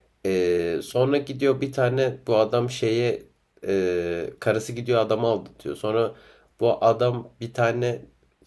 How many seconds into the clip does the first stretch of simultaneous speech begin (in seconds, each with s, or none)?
none